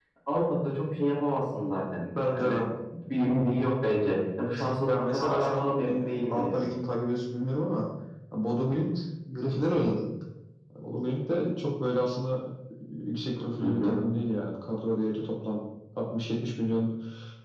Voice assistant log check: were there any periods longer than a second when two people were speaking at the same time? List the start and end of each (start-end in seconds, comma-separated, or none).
4.9-6.6